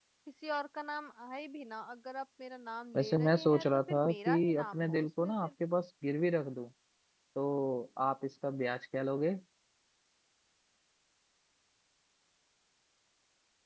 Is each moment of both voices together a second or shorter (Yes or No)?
No